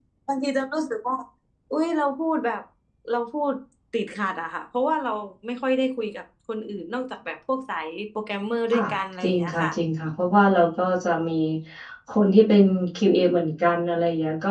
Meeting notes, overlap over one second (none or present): none